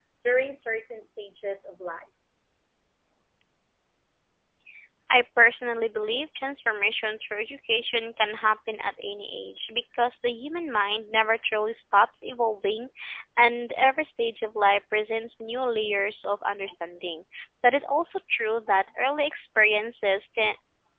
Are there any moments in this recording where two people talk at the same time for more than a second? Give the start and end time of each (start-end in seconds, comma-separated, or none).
none